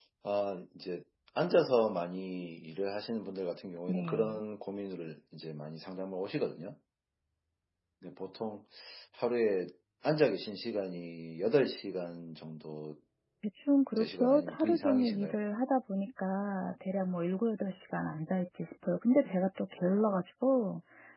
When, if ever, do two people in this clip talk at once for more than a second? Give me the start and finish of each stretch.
14.0-15.3

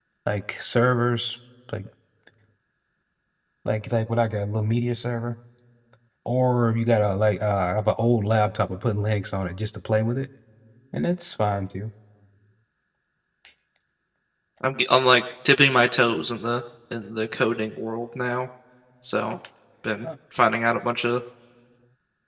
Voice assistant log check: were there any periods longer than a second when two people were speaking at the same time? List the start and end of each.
none

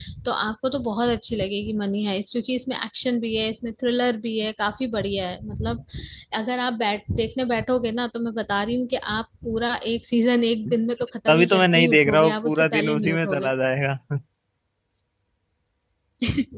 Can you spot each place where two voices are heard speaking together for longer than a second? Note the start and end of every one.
11.3-13.5

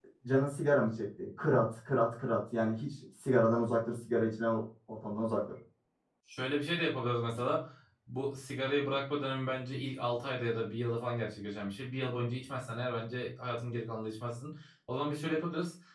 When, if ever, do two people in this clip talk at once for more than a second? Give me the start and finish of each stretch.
none

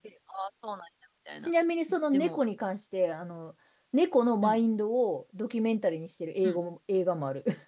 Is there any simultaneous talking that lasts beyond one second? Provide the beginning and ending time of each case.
none

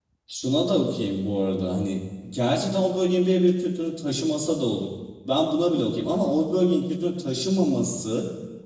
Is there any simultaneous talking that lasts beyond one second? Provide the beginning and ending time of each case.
none

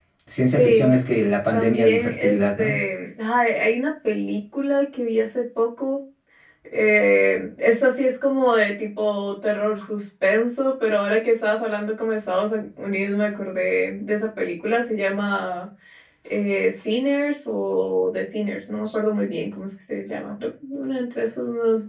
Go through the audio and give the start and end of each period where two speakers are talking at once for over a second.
1.5-2.7

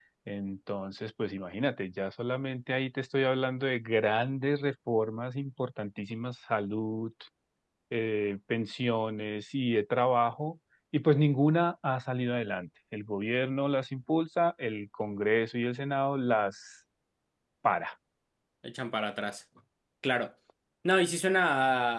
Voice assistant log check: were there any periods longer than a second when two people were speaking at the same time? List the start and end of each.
none

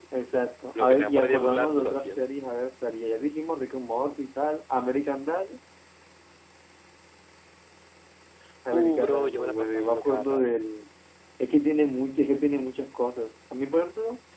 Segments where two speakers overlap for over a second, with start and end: 0.7-2.2, 8.7-10.5

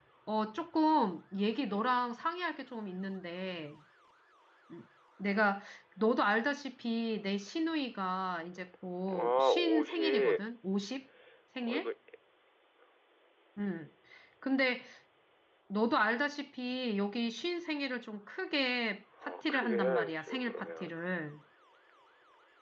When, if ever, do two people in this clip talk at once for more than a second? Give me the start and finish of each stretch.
9.1-10.4, 19.2-20.9

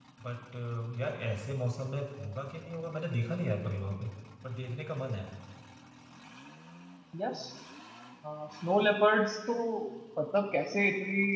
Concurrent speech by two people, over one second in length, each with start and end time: none

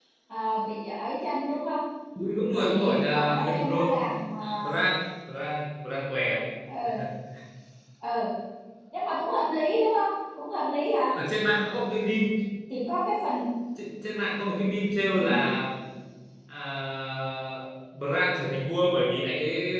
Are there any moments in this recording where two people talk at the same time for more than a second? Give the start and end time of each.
2.5-3.9

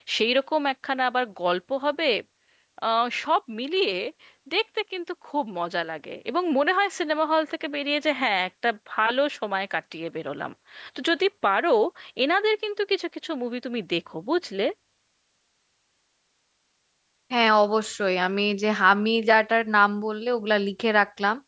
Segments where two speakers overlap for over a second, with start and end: none

